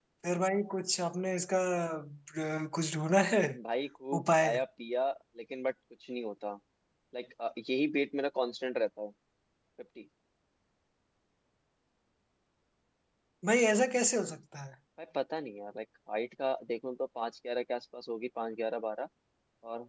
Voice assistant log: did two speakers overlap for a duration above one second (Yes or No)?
No